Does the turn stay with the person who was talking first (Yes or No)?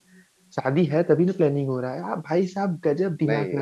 Yes